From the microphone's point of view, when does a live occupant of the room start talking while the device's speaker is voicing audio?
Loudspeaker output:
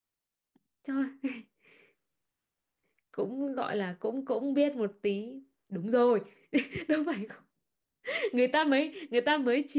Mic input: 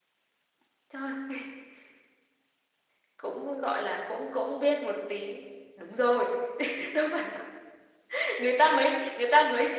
none

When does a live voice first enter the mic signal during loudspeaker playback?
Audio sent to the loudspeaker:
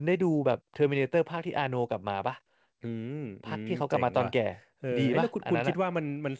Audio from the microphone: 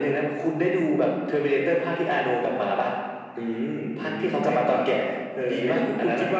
none

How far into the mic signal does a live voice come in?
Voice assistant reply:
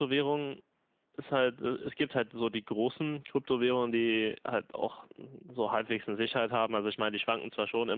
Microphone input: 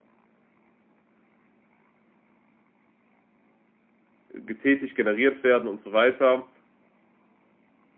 4.3 s

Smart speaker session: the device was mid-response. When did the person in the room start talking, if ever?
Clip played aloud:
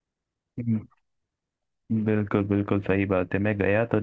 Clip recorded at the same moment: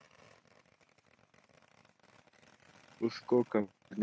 3.1 s

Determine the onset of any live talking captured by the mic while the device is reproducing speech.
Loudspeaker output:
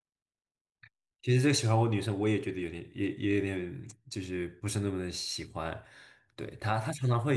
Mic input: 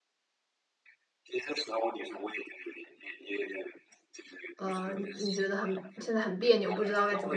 4.6 s

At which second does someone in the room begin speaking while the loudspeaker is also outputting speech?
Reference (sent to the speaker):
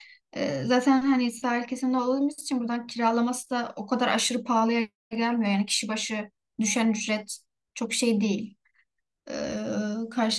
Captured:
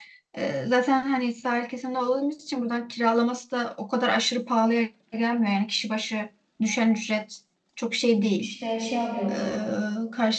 8.4 s

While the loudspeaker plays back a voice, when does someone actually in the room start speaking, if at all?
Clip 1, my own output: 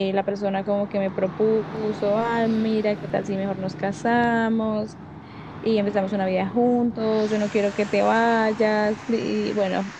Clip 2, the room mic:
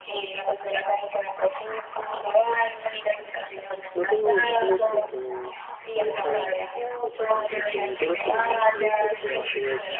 3.9 s

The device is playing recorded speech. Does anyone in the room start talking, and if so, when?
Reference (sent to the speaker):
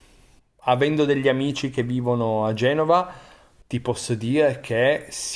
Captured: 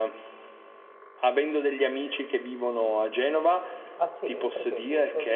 4.0 s

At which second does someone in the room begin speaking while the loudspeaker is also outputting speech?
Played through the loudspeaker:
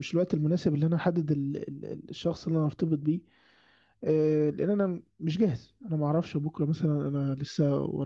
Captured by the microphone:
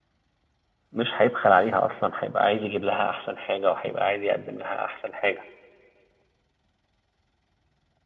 0.9 s

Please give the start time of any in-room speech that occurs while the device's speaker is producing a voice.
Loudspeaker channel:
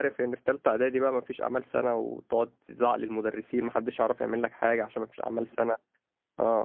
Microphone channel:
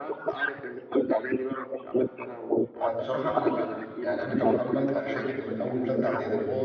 2.8 s

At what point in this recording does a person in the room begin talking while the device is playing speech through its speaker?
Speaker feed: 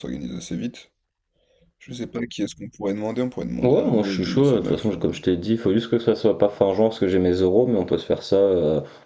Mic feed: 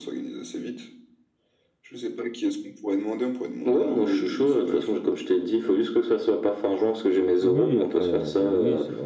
7.4 s

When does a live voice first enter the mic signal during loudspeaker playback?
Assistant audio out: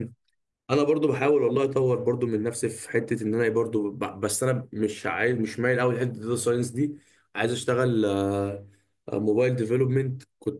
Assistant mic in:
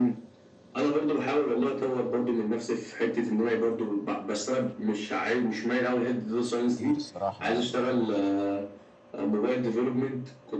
6.6 s

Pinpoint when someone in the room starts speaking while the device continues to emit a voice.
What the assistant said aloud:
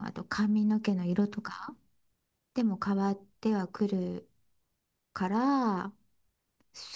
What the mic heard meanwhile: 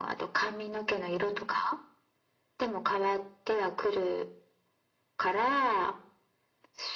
none

